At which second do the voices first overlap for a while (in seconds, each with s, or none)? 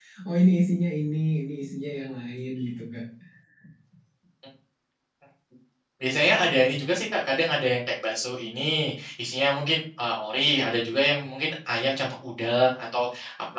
none